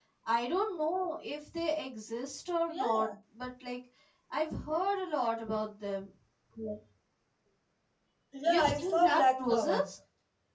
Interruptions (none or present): present